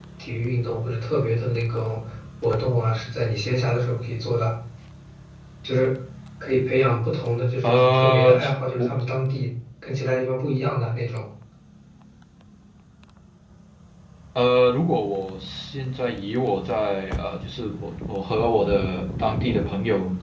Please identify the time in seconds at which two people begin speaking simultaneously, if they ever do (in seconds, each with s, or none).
7.6 s